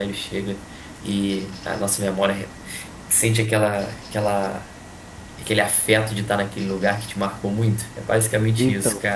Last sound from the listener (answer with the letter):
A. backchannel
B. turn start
B